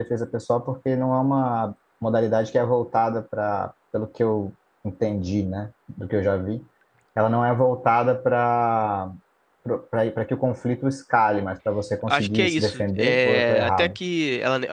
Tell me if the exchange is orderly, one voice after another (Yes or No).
No